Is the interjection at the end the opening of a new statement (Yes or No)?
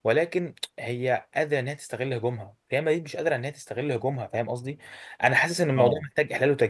No